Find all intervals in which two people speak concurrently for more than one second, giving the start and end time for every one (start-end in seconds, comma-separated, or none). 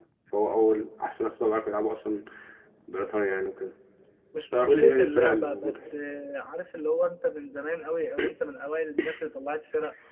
4.5-5.9